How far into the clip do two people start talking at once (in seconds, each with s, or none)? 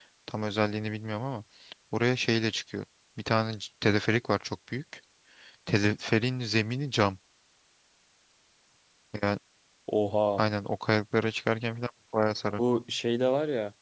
none